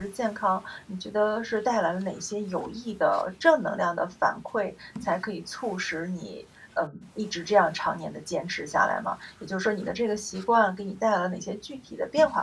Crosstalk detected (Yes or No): No